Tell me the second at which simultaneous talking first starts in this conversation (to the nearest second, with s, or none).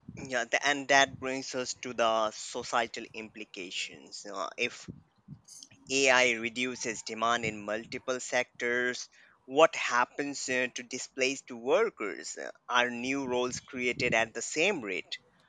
none